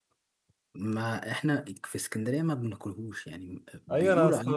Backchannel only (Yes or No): No